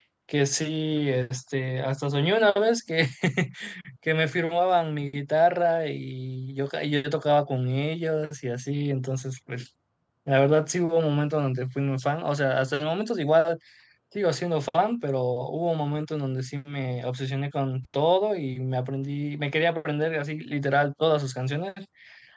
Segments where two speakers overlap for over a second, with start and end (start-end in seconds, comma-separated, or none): none